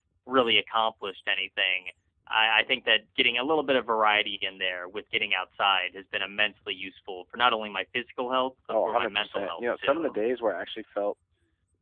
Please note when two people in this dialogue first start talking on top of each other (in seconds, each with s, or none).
8.7 s